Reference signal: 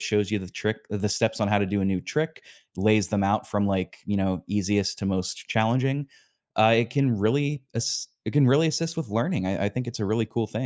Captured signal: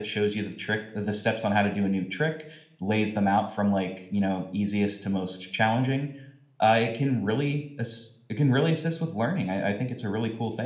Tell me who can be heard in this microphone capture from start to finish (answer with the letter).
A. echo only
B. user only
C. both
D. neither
A